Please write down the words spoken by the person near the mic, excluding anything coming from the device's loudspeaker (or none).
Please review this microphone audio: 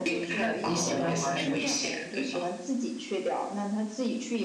那你喜欢滑雪吗？